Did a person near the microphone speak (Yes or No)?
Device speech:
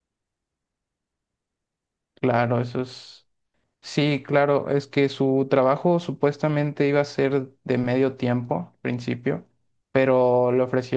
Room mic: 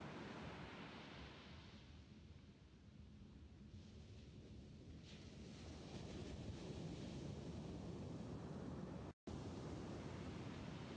No